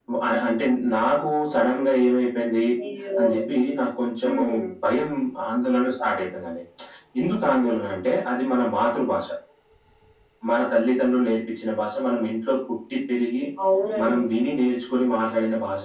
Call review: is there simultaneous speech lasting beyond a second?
No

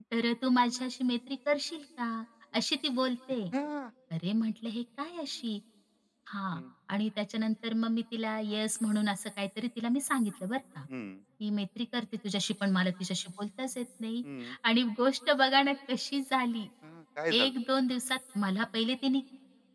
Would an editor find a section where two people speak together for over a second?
No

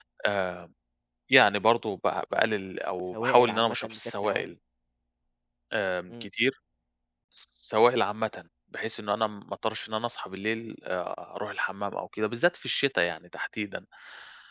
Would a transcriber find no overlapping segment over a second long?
No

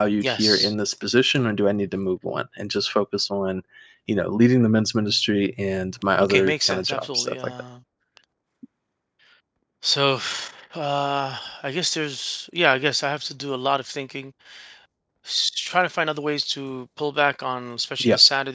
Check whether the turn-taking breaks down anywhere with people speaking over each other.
Yes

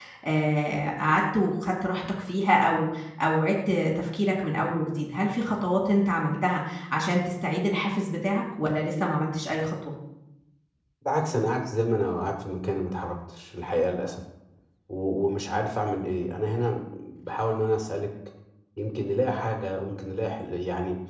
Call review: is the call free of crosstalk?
Yes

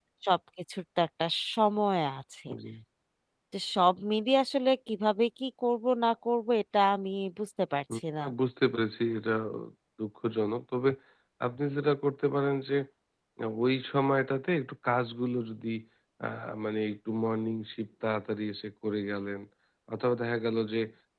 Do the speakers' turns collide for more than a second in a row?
No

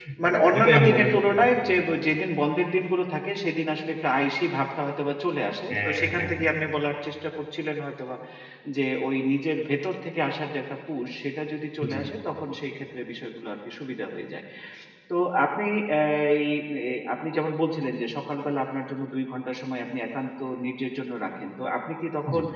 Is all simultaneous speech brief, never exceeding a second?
No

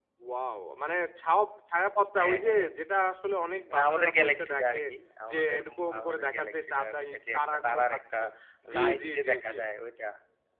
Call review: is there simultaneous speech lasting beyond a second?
Yes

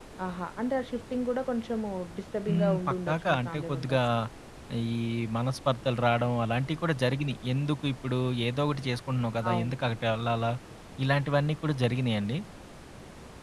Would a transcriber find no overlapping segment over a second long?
No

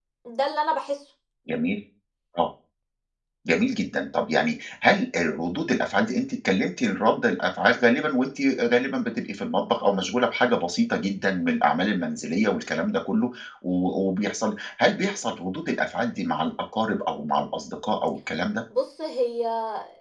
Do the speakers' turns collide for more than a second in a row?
No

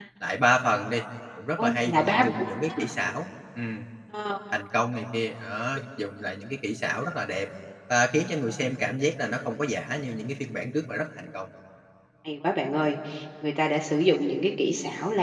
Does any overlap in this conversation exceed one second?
Yes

